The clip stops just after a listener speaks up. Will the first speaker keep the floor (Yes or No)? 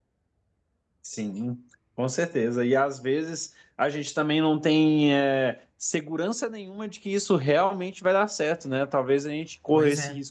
Yes